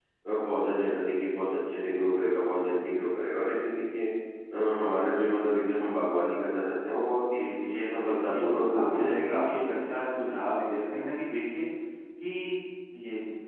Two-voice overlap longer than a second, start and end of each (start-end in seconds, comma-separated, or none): 8.0-9.6